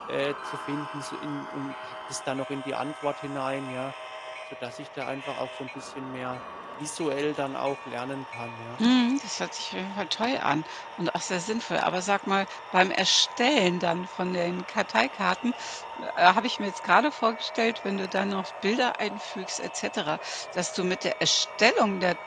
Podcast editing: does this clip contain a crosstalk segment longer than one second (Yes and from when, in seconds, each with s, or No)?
No